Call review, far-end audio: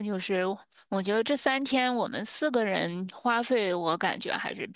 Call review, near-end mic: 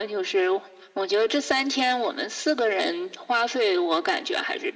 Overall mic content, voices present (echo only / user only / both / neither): echo only